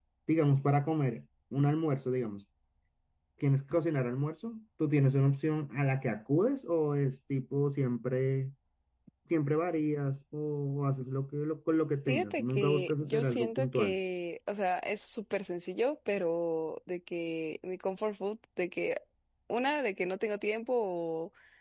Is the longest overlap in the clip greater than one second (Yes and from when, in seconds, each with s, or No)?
Yes, from 12.1 s